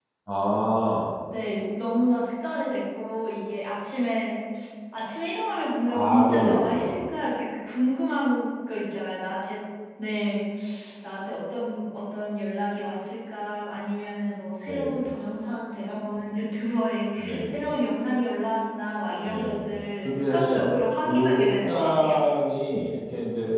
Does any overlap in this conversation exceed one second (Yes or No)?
Yes